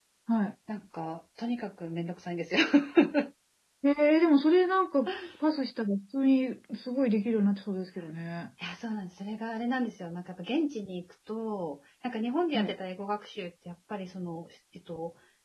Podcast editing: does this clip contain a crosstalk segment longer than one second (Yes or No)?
No